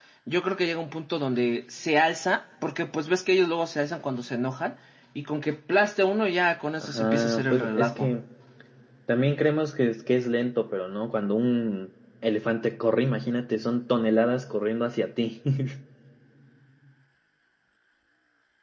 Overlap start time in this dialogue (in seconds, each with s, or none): 6.8 s